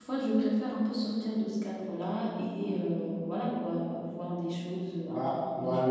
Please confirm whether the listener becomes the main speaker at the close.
Yes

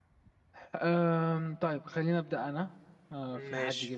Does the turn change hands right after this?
No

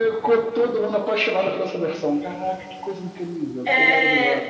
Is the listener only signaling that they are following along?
No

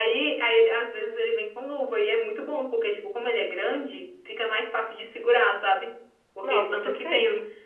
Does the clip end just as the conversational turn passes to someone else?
No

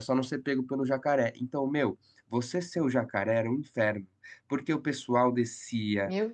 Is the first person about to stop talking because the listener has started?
No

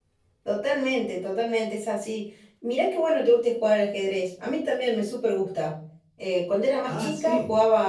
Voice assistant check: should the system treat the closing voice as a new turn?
No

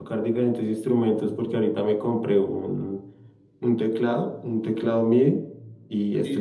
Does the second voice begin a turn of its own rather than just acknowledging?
No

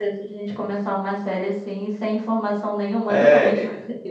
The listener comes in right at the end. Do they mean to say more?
Yes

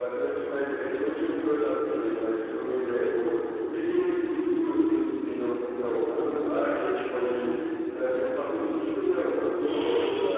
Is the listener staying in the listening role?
Yes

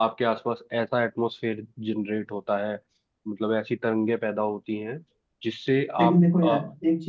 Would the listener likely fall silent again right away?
No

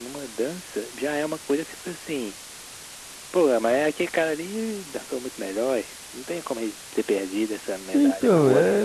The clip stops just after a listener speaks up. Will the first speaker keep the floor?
No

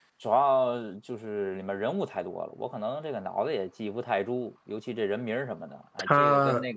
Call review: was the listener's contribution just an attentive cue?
Yes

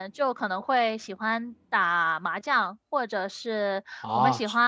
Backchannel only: Yes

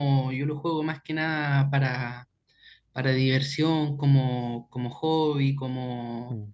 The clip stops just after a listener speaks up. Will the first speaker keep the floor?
Yes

